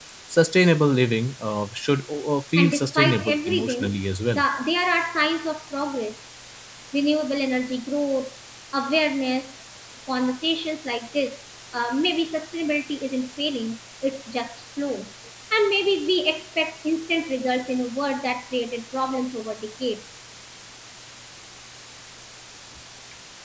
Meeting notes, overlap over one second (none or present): present